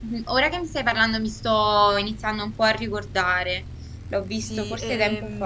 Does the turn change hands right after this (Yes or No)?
Yes